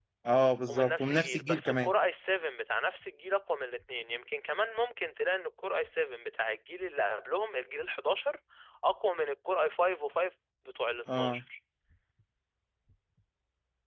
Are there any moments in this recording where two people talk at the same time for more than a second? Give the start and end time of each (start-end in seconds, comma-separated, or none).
0.7-1.9